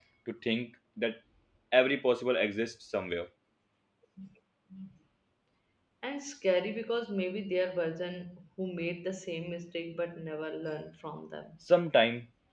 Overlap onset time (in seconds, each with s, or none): none